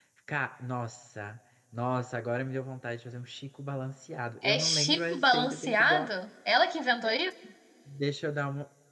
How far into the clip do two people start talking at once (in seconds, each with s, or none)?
4.4 s